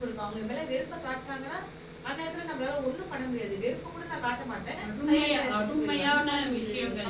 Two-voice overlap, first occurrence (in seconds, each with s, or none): 4.8 s